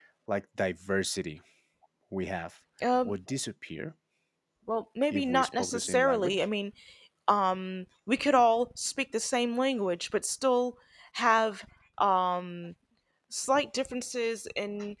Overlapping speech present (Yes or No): Yes